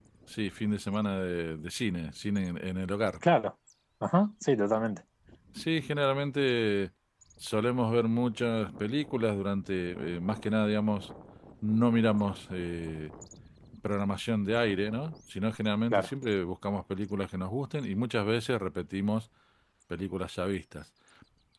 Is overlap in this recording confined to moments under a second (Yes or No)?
Yes